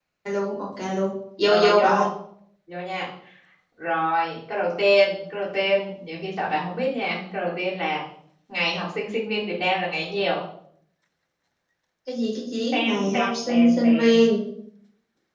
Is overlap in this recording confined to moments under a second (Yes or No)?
No